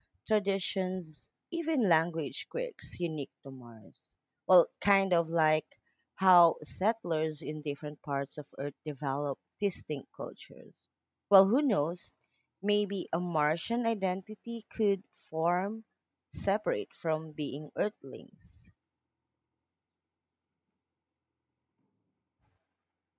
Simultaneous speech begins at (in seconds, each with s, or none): none